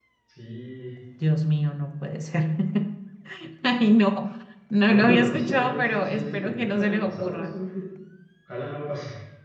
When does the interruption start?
4.9 s

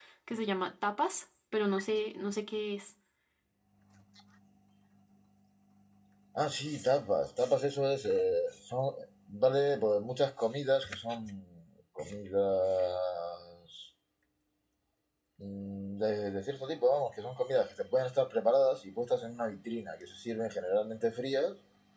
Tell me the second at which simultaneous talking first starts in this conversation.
none

